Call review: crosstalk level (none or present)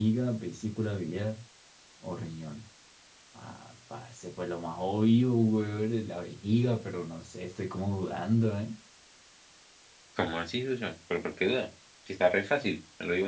none